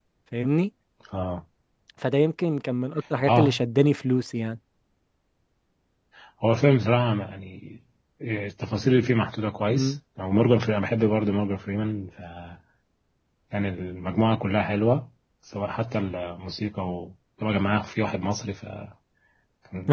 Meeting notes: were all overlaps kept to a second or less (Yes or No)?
Yes